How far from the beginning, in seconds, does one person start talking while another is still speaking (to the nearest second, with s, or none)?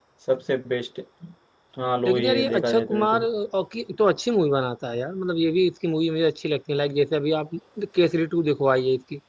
2 s